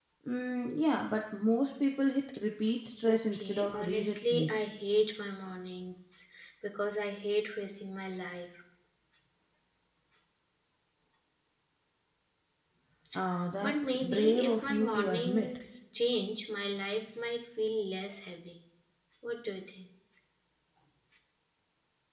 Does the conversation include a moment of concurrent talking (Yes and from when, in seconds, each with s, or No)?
Yes, from 3.1 s